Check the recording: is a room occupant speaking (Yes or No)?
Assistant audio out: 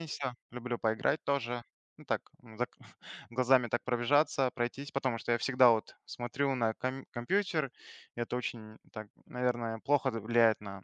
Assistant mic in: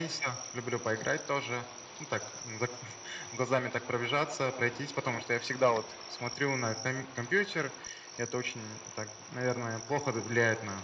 No